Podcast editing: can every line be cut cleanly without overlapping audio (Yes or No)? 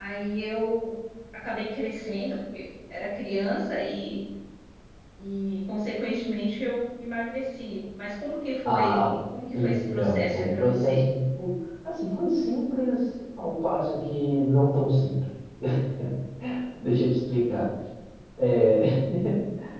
No